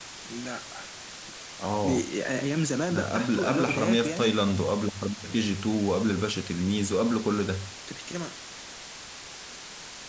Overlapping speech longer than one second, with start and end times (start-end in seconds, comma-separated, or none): 2.9-4.4